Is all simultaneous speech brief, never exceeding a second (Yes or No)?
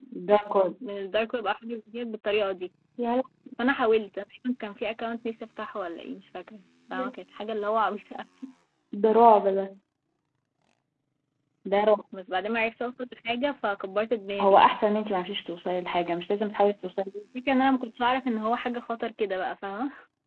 Yes